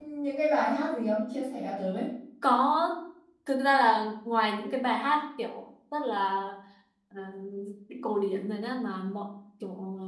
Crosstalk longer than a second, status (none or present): none